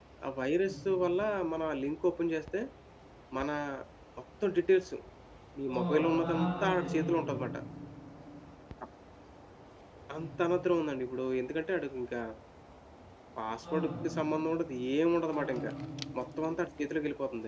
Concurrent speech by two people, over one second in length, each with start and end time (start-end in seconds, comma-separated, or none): 5.7-7.4